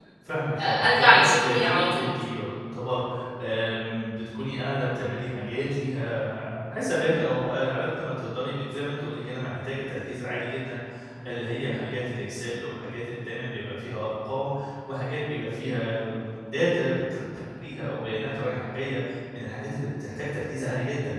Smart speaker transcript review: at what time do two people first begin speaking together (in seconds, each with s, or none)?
0.6 s